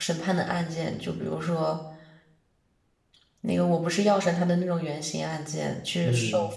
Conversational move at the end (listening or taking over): listening